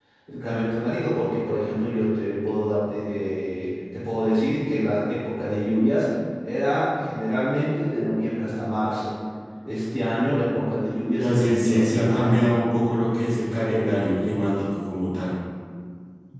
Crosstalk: present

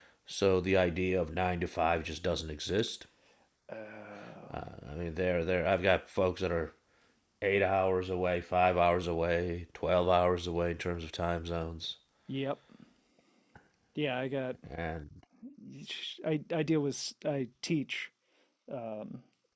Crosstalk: none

